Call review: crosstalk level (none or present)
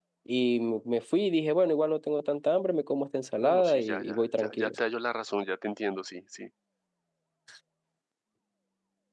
present